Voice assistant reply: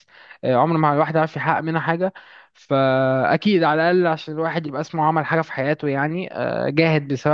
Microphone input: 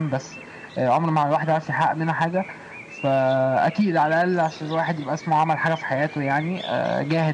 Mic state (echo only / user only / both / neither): echo only